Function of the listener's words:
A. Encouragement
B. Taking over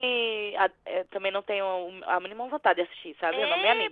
B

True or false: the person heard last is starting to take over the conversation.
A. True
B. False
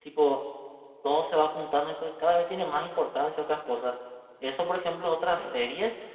B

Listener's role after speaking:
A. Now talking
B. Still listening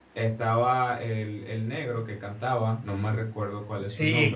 A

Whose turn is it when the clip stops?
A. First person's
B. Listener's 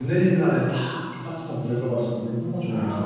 B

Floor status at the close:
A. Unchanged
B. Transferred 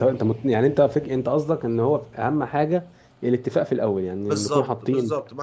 B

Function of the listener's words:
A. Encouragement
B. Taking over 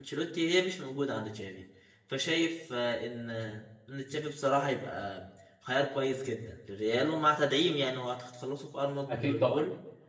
B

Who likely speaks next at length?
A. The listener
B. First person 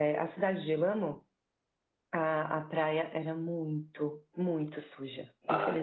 A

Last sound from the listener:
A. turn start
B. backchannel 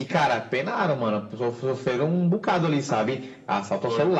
B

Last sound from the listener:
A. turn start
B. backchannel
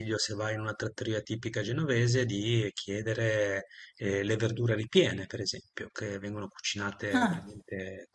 B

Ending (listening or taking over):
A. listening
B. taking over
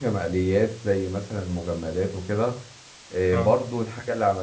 A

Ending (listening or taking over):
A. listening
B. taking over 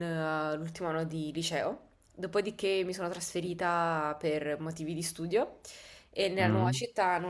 A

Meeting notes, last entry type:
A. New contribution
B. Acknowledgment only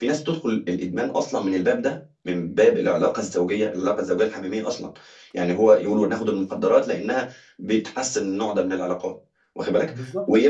B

